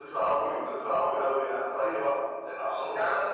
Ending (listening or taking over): listening